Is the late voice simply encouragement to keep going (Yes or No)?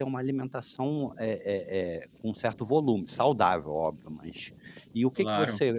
Yes